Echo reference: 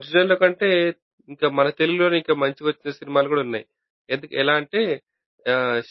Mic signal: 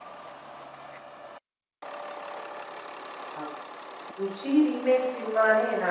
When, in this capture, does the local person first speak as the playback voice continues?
3.4 s

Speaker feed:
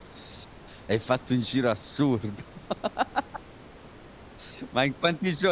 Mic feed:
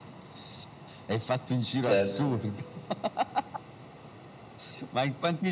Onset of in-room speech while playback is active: 1.8 s

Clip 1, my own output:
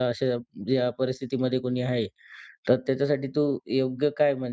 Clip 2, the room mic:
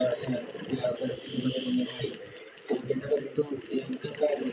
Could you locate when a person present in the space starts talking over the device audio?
none

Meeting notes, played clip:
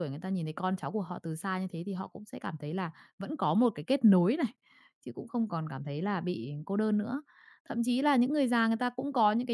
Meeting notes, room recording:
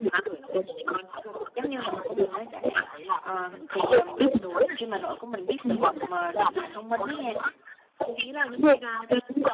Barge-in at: 1.5 s

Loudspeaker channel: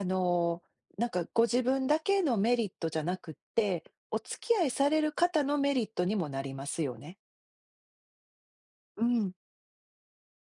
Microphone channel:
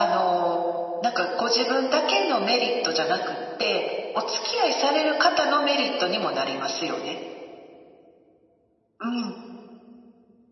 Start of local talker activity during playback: none

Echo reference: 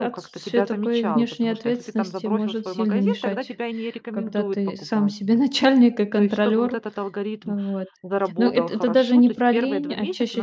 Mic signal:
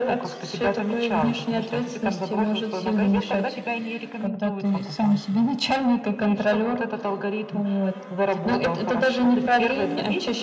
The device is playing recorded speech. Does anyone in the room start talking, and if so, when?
none

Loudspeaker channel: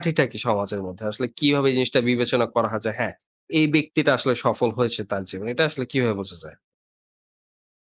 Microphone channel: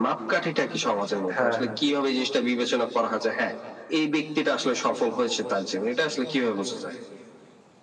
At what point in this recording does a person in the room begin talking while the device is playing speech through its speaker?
1.4 s

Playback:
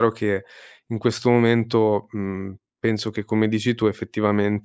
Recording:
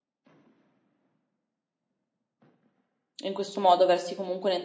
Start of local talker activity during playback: 3.2 s

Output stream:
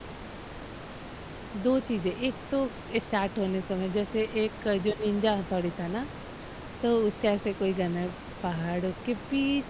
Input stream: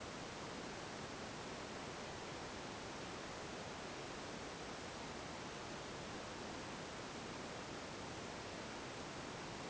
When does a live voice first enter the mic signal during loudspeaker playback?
none

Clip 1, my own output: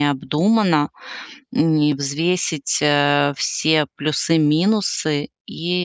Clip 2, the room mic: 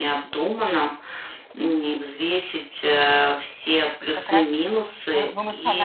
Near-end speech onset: 4.0 s

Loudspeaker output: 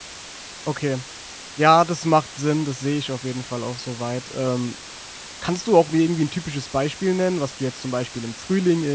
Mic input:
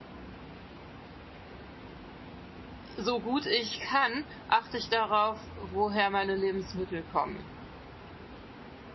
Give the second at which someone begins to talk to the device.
3.0 s

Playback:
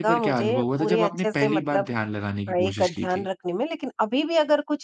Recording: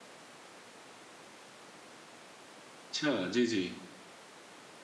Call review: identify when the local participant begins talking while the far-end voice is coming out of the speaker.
2.9 s

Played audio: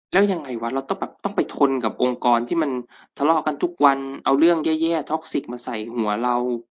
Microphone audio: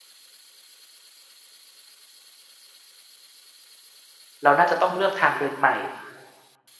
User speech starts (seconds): 4.4 s

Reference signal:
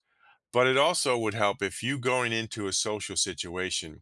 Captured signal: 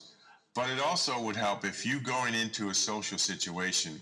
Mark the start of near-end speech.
none

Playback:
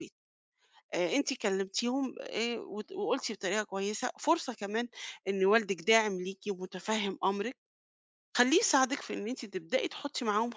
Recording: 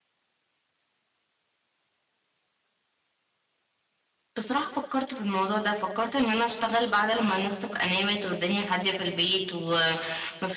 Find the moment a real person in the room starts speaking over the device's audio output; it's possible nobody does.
4.4 s

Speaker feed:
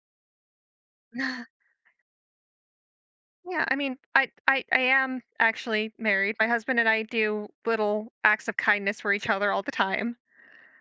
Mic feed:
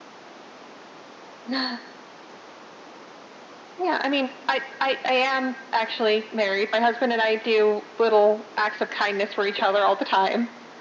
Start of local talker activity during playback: none

